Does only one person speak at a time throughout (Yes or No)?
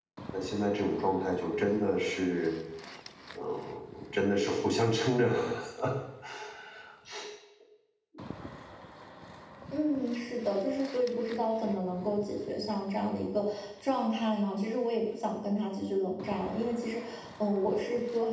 Yes